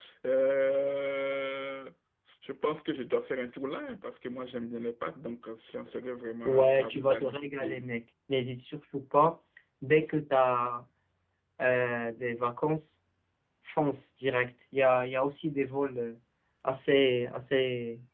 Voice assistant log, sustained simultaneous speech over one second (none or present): present